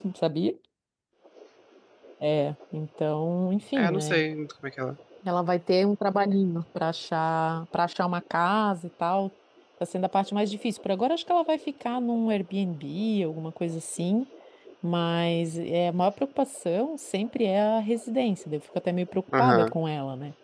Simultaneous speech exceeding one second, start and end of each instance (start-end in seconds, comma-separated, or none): none